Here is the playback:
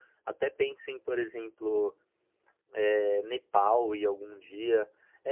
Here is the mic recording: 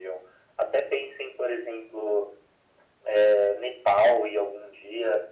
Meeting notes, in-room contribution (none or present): none